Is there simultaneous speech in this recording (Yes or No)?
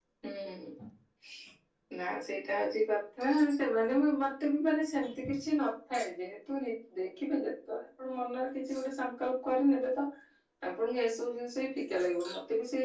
No